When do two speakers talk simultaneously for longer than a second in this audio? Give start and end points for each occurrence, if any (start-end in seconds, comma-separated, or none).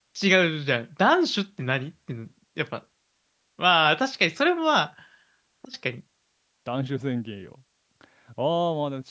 none